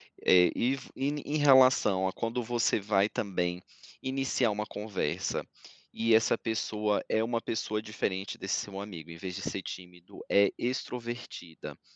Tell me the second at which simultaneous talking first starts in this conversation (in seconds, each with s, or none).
none